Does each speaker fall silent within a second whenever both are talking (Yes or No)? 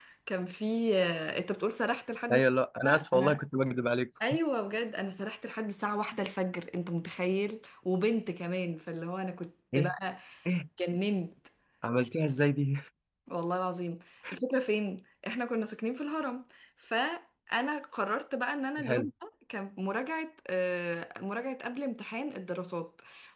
Yes